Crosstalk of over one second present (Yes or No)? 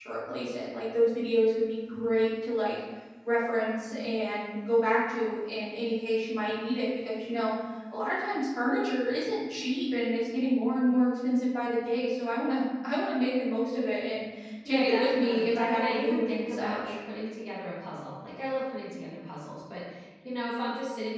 Yes